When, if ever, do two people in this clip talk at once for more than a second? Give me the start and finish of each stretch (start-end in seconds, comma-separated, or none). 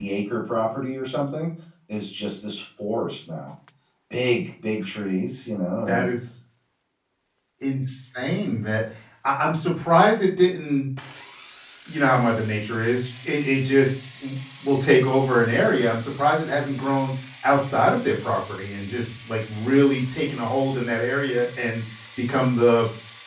none